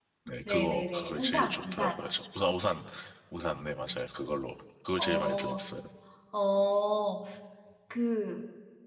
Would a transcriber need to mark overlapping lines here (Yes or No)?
Yes